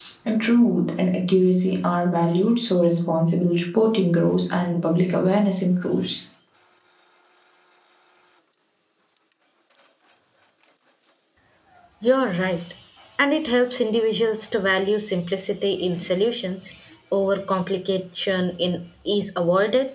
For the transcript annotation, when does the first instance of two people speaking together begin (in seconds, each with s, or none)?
none